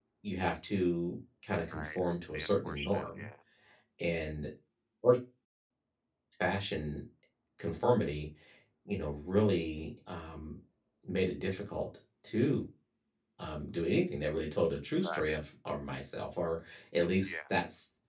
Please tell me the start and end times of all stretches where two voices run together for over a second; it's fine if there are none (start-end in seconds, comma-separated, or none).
1.7-3.2